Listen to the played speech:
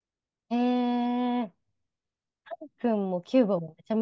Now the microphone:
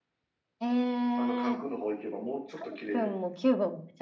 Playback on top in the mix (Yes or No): Yes